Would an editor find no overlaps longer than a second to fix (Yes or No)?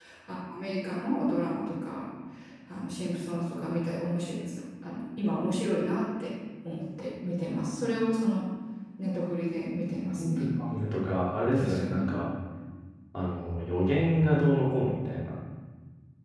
Yes